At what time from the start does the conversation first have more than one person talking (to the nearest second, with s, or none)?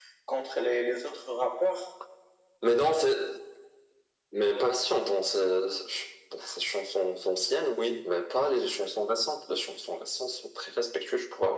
none